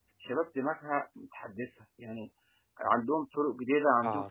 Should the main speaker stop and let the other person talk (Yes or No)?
No